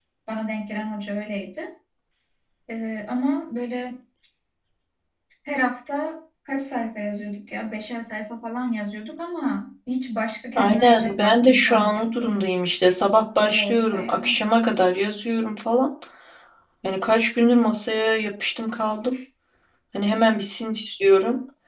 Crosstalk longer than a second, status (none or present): present